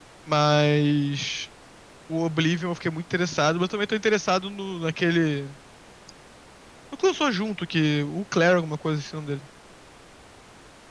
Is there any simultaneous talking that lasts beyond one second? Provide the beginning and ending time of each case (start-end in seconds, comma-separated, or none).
none